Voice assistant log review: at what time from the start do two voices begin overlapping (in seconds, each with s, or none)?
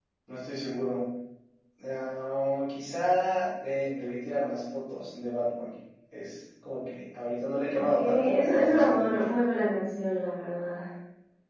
7.7 s